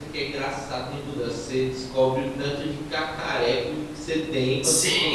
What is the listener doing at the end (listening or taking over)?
taking over